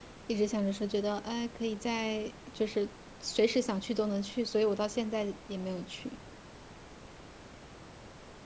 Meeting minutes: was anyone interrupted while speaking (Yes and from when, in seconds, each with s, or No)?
No